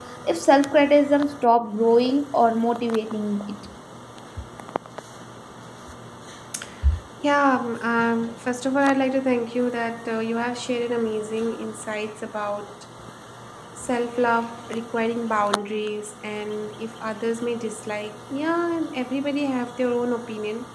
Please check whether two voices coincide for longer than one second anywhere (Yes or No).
No